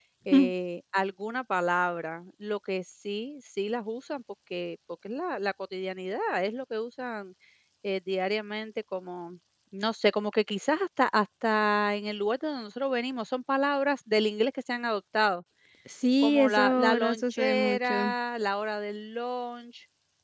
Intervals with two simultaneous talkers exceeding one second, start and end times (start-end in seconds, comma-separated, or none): 16.2-18.1